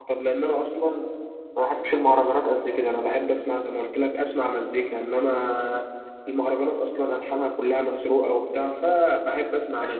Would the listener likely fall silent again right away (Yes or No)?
No